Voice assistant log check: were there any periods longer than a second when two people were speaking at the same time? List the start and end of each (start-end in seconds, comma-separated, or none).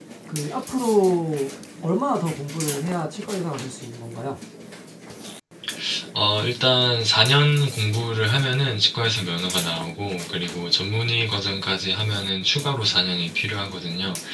none